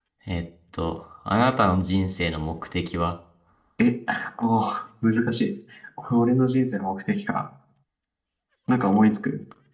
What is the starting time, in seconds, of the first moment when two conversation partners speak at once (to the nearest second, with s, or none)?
none